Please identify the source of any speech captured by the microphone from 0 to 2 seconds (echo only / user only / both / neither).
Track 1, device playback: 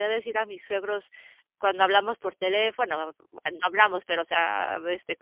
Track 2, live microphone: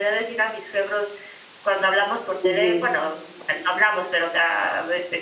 echo only